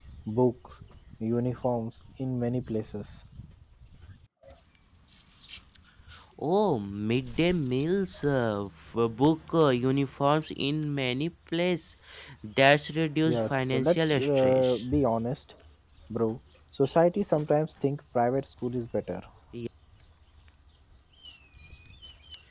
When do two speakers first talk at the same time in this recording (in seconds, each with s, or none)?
13.2 s